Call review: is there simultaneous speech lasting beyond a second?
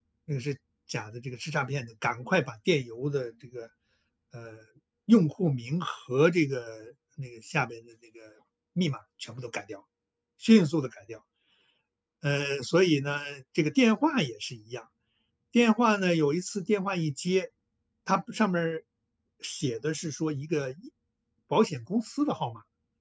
No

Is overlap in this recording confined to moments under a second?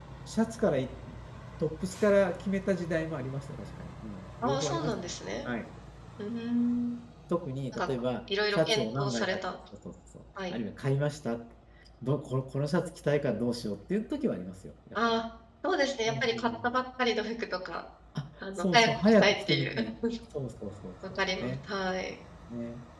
No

